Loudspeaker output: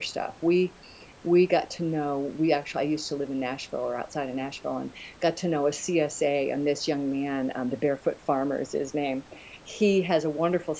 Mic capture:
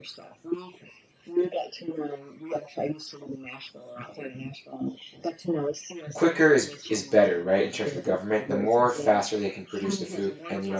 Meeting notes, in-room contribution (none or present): present